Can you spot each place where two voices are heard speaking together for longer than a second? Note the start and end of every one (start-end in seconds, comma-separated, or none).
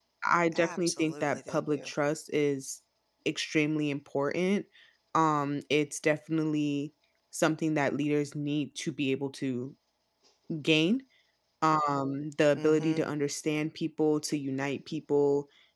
0.5-1.9